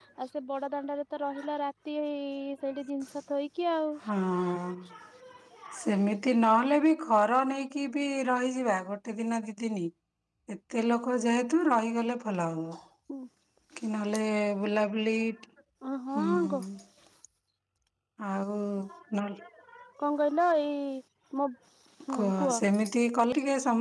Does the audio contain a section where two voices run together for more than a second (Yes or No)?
No